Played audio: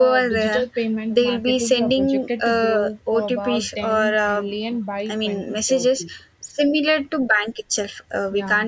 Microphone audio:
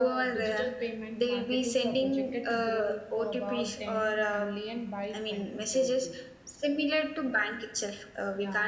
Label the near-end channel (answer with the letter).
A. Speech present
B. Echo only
B